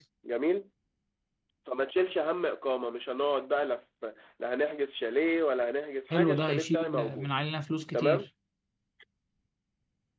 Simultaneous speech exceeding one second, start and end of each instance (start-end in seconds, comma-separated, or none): 6.1-7.3